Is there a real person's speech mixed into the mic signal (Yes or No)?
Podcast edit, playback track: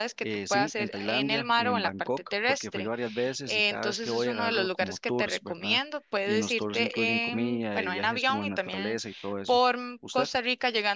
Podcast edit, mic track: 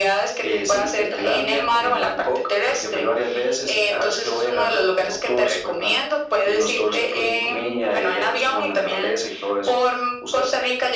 No